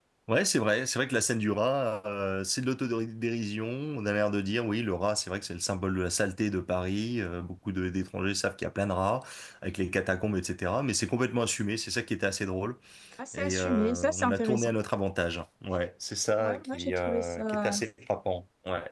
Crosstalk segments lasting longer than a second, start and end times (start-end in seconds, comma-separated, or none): 13.3-14.7, 16.4-17.8